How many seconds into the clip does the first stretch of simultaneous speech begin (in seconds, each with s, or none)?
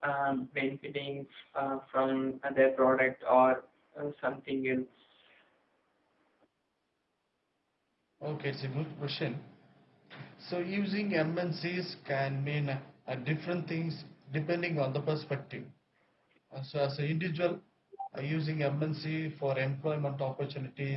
none